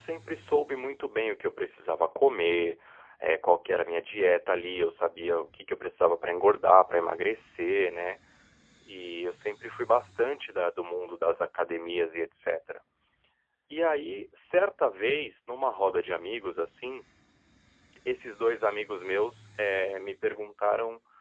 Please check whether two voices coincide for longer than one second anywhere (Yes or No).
No